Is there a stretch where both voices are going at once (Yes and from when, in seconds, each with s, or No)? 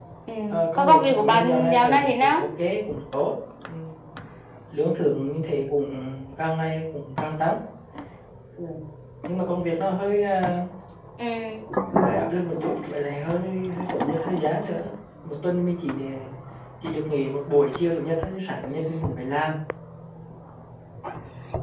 Yes, from 0.8 s